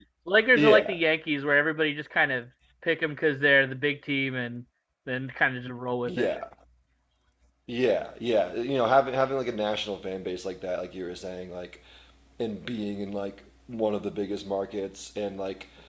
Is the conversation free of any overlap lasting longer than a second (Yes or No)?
Yes